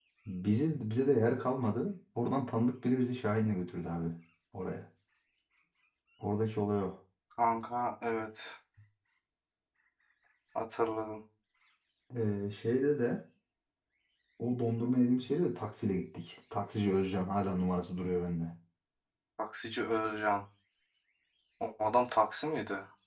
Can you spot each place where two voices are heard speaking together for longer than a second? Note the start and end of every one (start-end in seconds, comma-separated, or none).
none